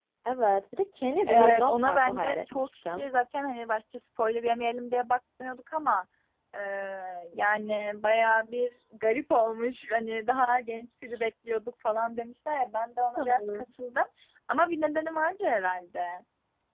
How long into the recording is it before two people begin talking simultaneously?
1.3 s

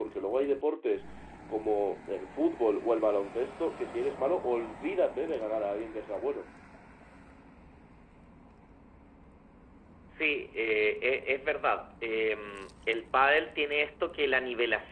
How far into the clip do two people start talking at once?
none

